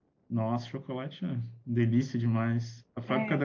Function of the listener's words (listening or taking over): listening